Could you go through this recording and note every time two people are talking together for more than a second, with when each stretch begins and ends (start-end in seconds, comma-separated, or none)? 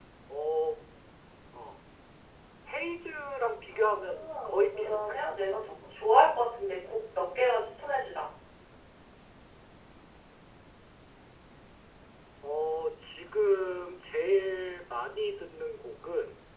3.7-5.2